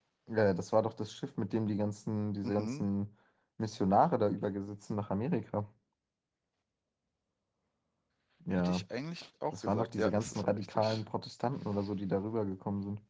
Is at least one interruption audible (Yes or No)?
Yes